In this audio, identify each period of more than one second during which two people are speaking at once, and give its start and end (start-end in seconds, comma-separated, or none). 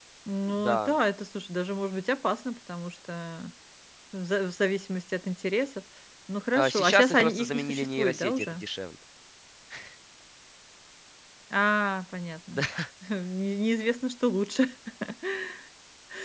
6.6-8.6